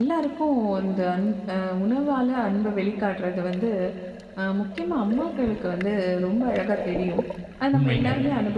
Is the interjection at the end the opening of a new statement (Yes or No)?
No